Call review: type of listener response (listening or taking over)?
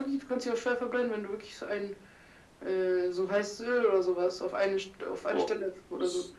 taking over